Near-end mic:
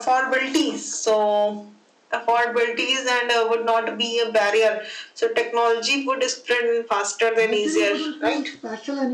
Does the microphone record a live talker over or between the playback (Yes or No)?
Yes